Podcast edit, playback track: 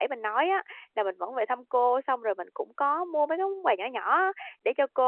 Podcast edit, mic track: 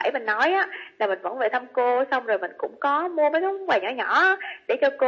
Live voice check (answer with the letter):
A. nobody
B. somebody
A